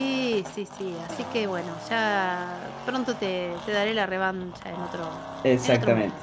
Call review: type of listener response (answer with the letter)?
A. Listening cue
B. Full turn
B